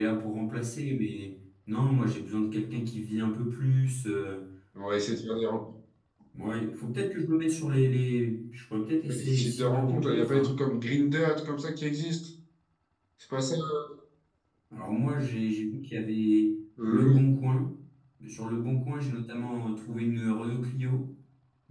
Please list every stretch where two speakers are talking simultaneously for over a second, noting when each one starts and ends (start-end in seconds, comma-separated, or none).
9.1-10.6